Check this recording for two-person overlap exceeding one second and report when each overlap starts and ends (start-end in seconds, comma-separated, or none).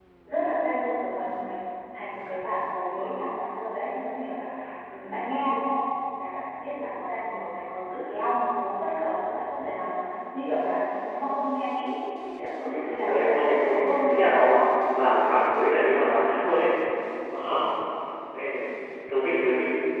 12.6-14.5